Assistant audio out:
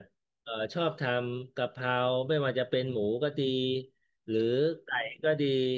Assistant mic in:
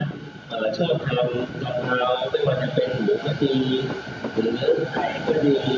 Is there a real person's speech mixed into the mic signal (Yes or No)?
No